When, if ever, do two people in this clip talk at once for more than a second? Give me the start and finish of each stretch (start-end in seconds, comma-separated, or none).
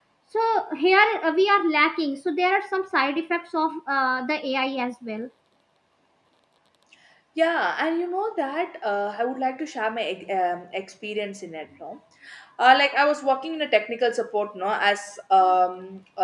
none